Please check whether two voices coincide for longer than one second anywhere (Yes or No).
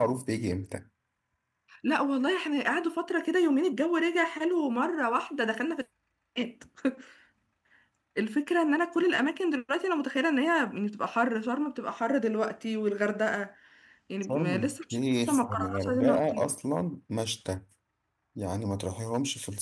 Yes